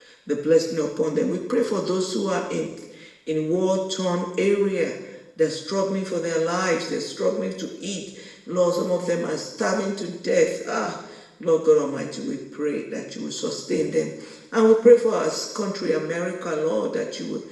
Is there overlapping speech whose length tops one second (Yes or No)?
No